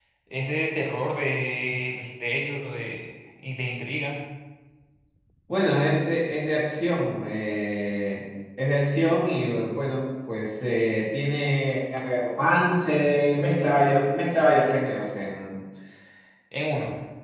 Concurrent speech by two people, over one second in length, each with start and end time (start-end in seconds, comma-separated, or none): none